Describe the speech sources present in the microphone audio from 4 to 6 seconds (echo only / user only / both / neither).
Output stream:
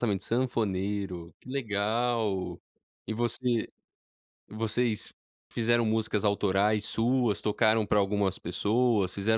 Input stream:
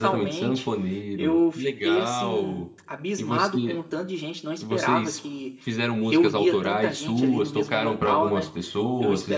both